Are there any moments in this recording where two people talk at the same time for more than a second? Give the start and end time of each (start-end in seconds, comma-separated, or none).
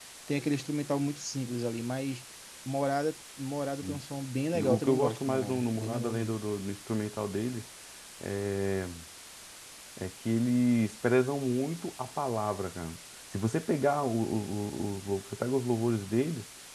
4.5-6.4